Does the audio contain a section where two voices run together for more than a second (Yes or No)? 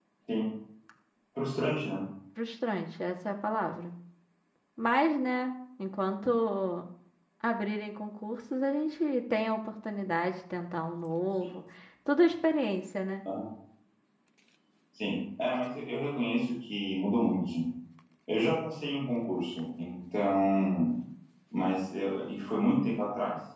No